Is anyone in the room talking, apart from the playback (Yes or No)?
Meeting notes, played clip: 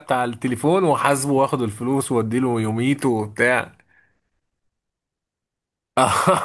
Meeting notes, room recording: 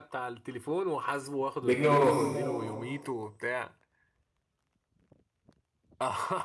Yes